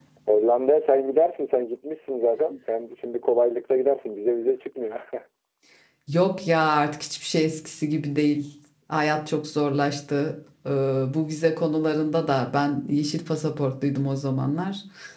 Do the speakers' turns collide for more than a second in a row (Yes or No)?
No